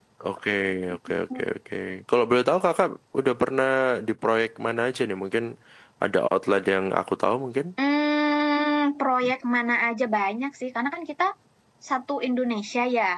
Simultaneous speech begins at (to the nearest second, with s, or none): none